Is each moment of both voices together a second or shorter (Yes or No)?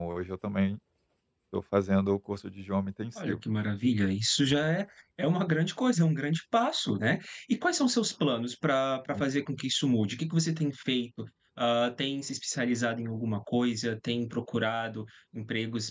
Yes